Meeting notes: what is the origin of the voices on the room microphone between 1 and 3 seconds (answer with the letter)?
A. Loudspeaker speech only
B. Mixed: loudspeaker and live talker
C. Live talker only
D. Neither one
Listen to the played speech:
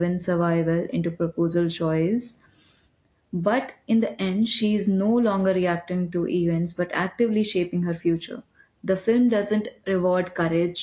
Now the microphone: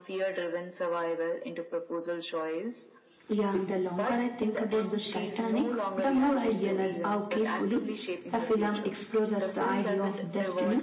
A